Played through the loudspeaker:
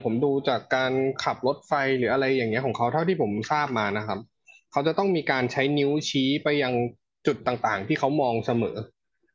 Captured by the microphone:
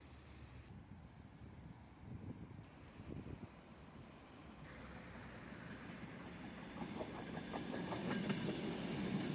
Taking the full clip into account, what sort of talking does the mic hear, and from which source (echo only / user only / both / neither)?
neither